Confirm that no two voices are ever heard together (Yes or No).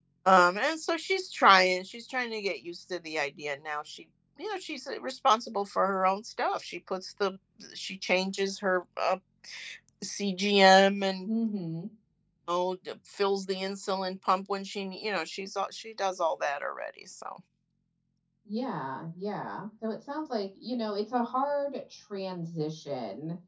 Yes